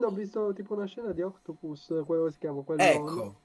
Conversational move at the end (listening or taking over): taking over